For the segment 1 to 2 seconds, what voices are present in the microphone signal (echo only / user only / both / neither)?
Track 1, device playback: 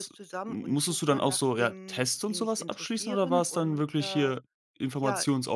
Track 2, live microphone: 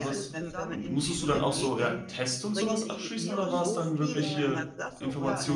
both